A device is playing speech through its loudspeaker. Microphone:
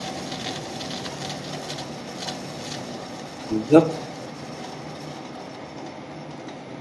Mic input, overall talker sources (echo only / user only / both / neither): user only